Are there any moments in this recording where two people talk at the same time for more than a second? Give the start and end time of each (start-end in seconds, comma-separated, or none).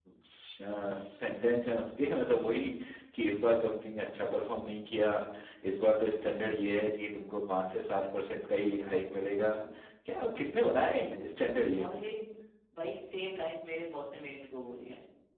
none